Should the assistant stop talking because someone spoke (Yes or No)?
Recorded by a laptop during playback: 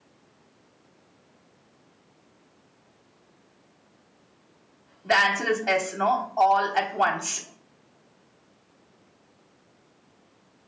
Yes